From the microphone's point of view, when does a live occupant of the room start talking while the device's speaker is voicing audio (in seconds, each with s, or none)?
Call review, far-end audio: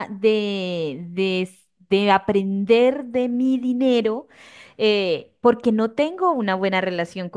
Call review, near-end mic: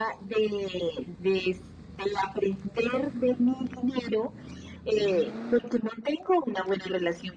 none